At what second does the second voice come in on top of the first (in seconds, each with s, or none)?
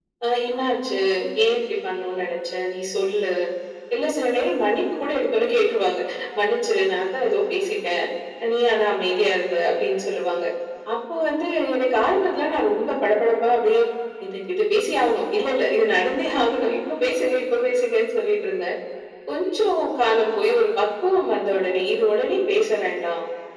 none